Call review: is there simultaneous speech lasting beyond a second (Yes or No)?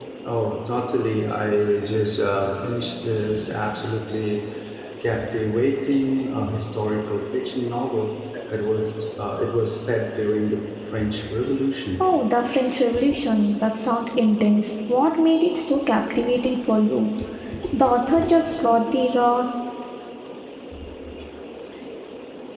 No